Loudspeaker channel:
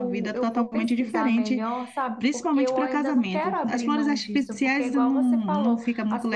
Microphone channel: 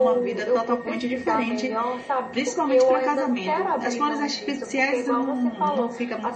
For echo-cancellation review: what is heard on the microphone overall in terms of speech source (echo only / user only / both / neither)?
echo only